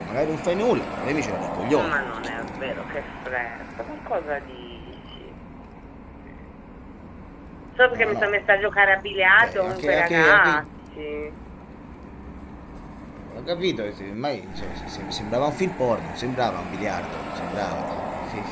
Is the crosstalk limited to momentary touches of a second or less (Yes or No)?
No